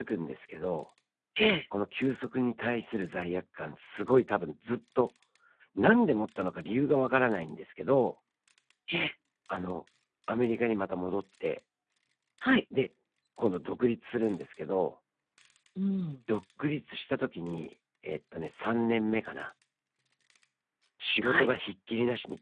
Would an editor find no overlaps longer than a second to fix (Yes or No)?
Yes